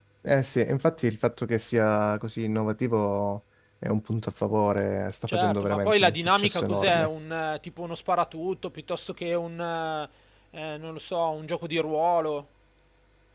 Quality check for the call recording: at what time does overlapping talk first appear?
5.3 s

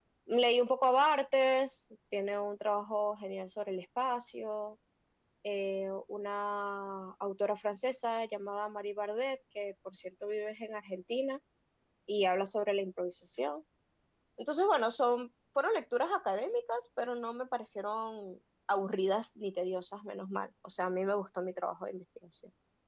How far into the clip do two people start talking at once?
none

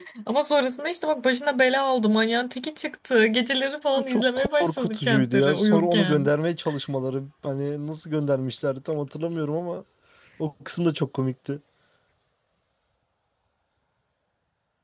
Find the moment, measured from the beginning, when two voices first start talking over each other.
4.0 s

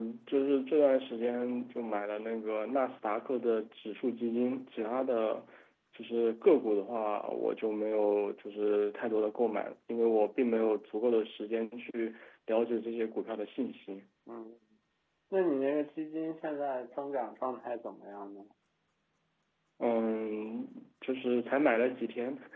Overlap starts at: none

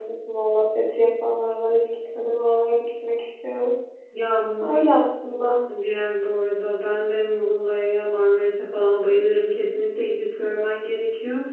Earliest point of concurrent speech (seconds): none

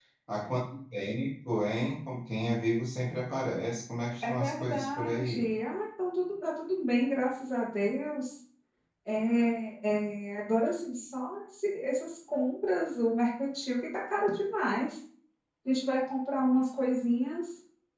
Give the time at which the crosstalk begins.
4.2 s

